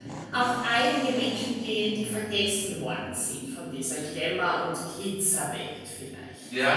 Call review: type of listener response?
taking over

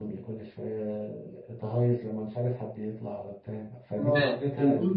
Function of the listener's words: taking over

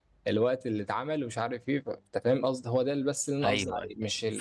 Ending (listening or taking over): taking over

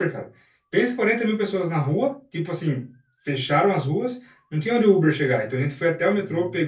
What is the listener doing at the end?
listening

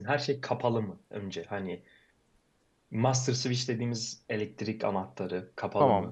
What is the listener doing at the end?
listening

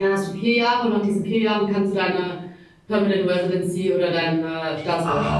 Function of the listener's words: taking over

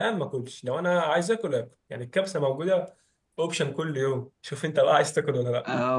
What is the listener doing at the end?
taking over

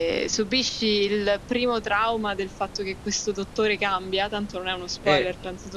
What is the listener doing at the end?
taking over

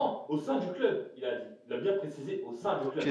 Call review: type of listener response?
taking over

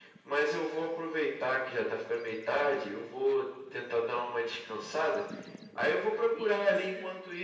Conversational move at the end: listening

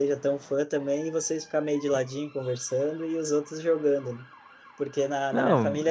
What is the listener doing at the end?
listening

